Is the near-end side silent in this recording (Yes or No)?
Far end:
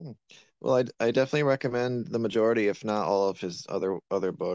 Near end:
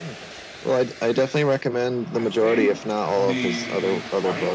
No